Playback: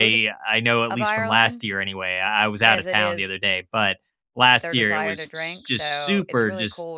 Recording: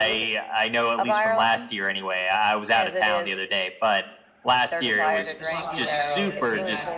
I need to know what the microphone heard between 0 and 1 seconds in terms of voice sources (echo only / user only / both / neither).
echo only